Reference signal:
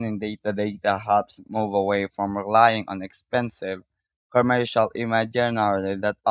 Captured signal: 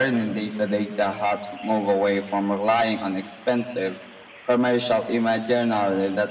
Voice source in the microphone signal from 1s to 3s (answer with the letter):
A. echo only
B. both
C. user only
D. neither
A